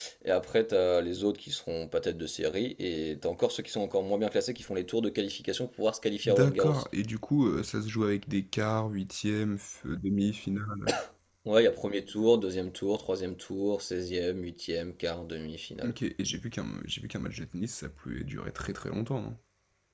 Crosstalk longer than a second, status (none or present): none